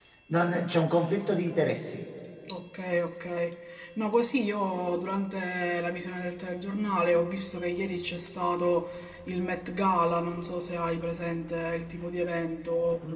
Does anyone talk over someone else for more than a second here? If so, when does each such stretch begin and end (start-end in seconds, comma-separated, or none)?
none